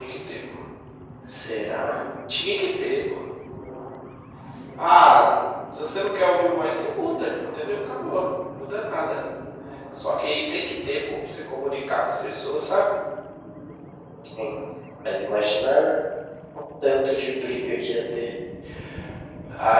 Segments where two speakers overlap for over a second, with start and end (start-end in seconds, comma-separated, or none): none